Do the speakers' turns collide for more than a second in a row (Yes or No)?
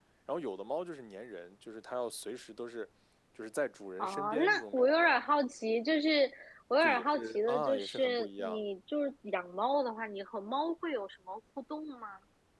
Yes